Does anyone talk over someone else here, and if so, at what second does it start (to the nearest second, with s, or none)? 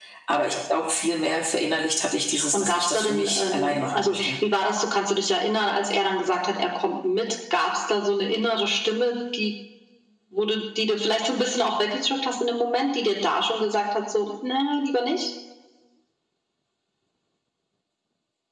2 s